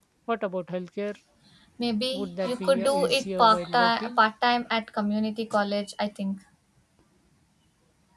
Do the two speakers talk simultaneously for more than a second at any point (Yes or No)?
Yes